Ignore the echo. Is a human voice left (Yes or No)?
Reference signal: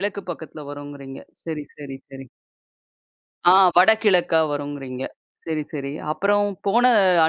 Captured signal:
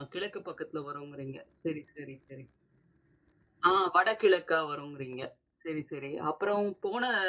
No